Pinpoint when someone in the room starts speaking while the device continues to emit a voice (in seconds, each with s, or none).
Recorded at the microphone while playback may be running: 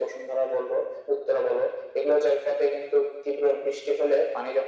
none